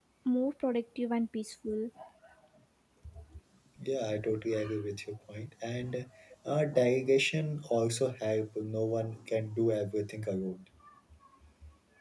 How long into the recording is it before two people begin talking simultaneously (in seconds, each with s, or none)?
none